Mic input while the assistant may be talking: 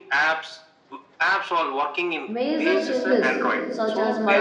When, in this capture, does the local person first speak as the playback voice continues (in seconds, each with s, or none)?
2.3 s